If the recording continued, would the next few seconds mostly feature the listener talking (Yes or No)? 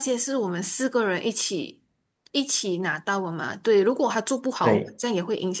No